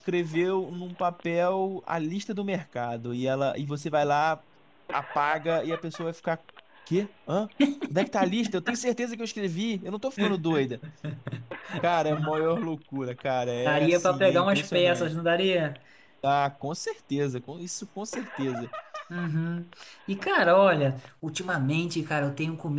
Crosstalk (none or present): present